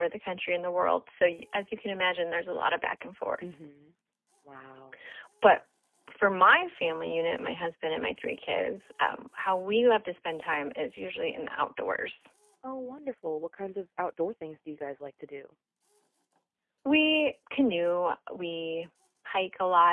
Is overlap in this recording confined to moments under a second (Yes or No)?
Yes